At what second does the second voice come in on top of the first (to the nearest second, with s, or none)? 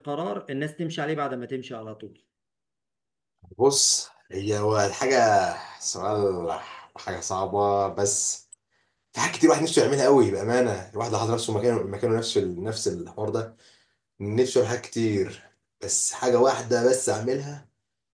none